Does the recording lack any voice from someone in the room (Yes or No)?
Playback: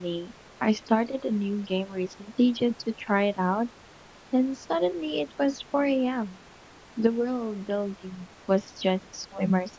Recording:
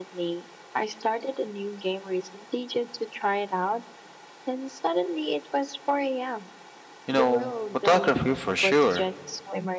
No